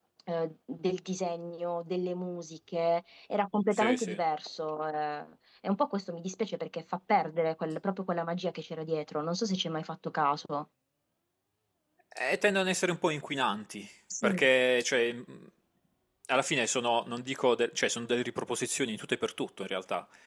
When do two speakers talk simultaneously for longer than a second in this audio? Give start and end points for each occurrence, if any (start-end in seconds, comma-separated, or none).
none